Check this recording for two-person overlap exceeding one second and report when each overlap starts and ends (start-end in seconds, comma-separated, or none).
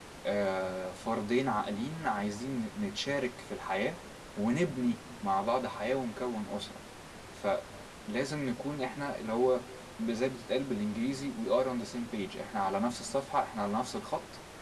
none